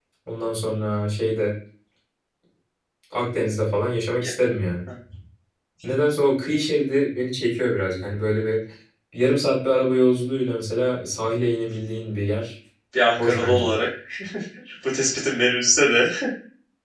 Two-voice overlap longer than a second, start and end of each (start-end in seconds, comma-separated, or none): none